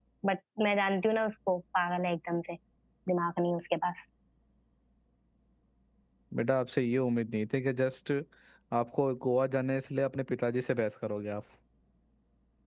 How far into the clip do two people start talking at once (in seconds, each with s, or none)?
none